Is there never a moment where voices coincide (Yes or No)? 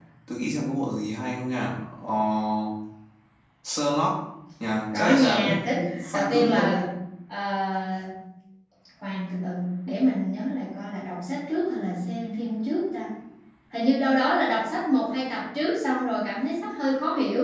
No